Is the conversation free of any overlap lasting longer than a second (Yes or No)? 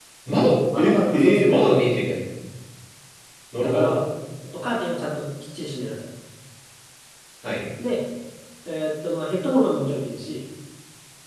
No